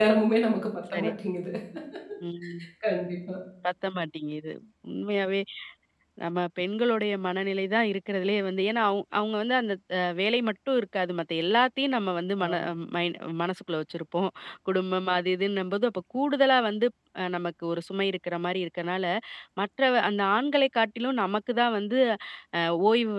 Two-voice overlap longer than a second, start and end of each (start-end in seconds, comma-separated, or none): none